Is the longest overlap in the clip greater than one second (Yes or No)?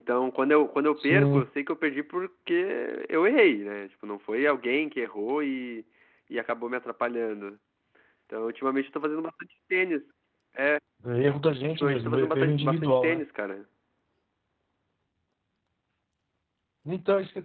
Yes